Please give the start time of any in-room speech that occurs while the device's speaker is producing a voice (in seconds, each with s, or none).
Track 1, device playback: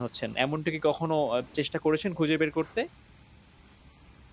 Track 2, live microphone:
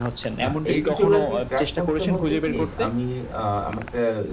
0.4 s